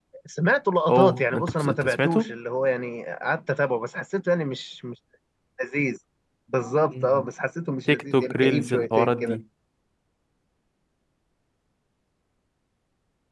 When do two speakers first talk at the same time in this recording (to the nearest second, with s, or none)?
1 s